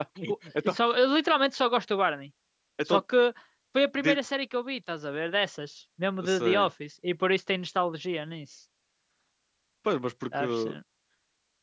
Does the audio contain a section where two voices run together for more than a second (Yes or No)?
No